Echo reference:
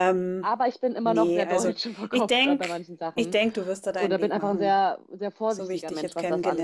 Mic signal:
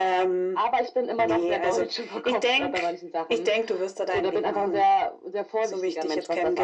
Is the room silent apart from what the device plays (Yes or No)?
Yes